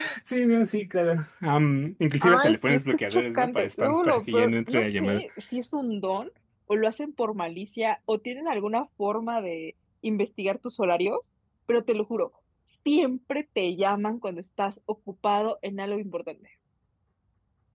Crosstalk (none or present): present